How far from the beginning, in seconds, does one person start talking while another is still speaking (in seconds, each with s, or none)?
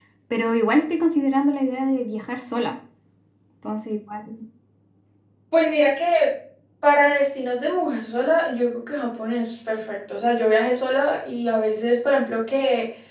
none